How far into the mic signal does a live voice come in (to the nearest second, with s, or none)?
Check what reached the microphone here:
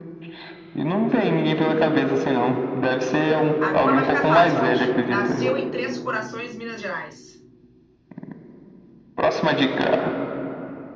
4 s